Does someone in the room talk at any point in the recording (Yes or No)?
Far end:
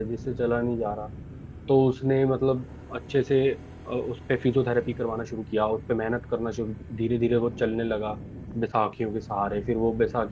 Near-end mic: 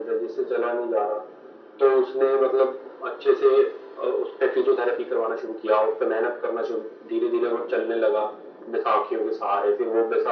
No